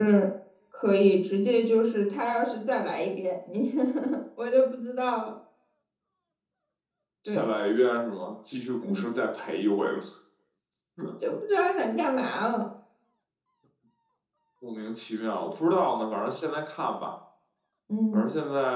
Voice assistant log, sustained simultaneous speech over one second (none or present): none